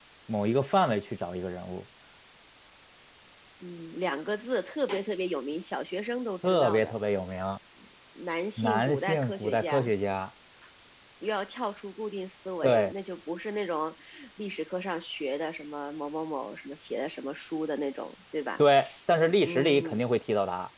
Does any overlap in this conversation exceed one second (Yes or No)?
Yes